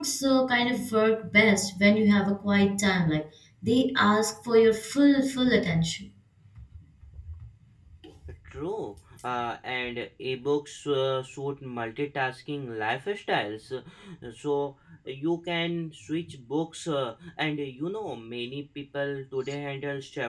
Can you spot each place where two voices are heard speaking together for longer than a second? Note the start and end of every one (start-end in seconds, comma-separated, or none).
none